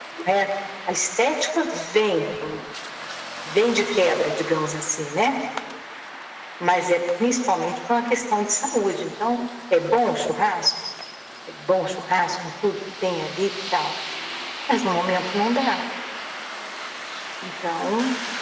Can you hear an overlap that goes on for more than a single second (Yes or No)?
No